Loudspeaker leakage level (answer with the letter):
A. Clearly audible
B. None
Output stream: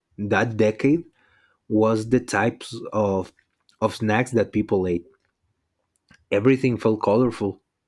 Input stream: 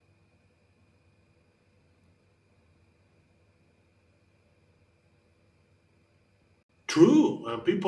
B